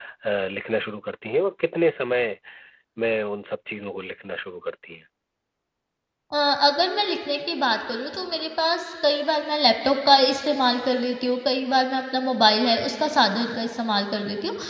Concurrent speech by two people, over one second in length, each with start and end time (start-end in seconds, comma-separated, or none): none